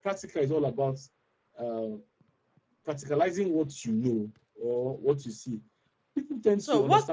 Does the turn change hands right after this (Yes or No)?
No